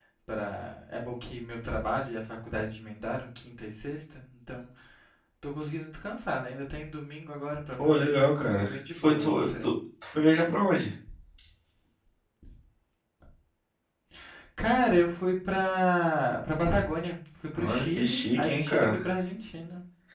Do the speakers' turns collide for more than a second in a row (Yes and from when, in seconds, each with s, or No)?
Yes, from 7.8 s